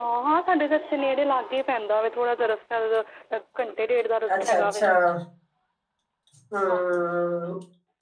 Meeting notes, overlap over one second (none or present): none